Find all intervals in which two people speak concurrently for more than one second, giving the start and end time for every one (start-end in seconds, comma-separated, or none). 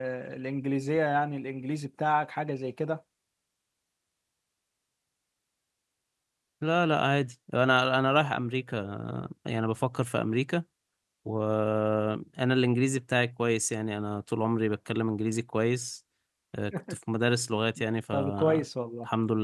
none